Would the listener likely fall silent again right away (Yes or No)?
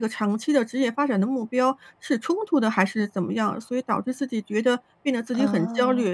Yes